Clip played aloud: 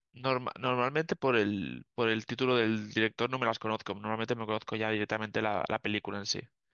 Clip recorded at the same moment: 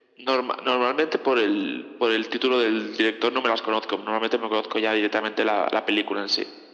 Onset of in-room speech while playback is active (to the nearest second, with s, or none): none